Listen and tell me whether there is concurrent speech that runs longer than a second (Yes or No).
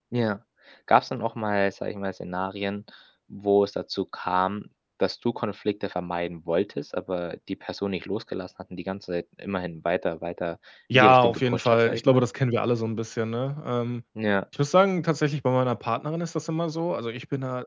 Yes